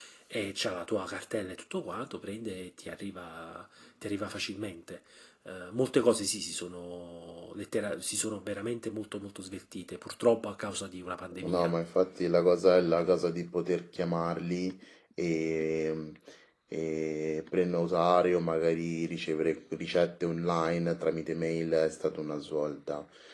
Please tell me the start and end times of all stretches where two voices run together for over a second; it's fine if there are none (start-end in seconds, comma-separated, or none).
none